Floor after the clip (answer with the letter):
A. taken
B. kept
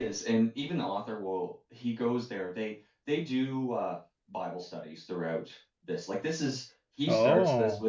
B